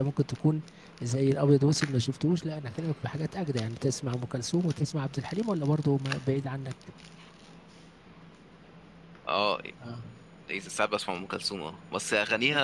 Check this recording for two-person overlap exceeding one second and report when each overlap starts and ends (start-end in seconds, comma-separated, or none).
none